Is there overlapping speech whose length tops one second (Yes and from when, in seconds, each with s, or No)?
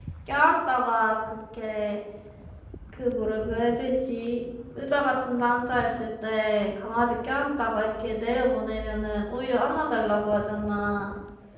No